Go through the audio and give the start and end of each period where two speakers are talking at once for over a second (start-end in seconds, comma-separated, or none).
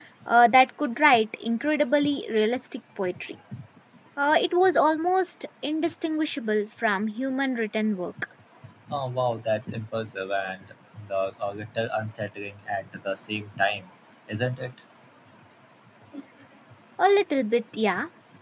none